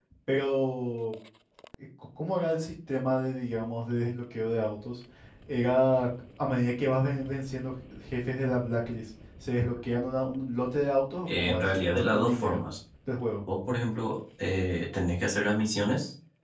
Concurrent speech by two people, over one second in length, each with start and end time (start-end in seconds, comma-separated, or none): 11.3-12.6